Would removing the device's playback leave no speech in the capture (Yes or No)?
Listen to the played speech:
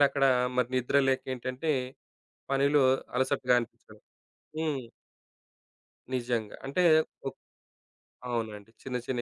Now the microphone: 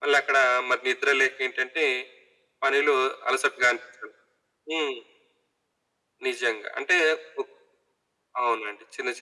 Yes